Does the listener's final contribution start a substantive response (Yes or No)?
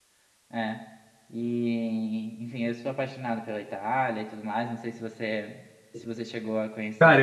Yes